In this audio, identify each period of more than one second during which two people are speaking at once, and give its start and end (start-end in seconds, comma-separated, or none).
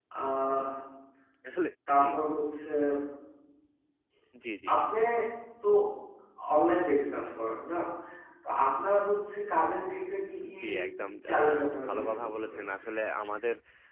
11.3-12.7